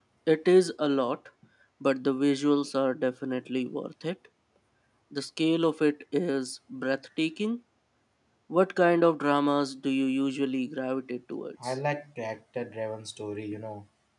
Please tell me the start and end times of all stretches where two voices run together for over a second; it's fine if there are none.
none

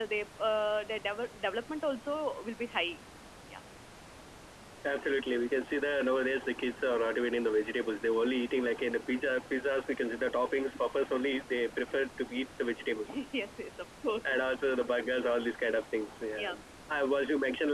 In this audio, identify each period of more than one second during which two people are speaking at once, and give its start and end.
none

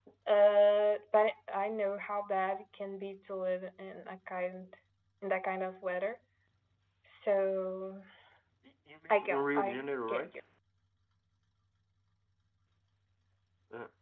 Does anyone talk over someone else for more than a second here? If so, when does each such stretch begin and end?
9.1-10.4

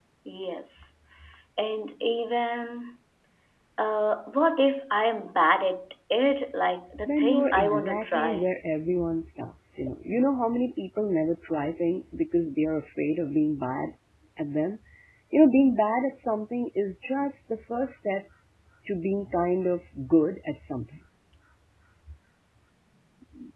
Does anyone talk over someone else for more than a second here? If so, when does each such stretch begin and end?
7.1-8.5

